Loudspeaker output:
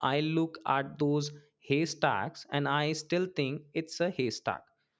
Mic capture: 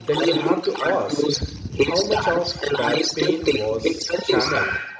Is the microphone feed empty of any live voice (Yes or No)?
No